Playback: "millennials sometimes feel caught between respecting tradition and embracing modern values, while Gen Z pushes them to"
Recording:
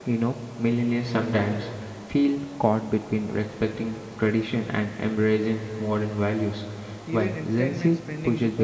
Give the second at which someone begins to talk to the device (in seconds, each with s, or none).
7.0 s